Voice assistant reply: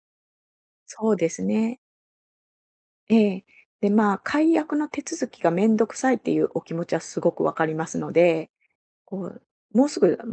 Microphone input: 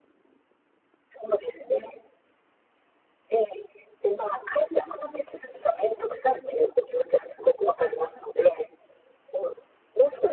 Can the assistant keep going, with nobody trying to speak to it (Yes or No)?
Yes